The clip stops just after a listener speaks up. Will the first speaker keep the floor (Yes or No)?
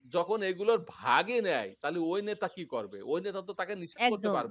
Yes